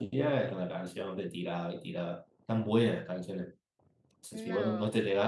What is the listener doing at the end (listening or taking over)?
listening